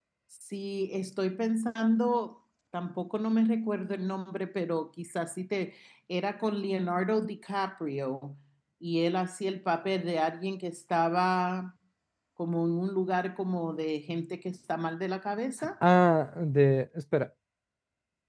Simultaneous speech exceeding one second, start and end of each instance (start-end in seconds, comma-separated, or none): none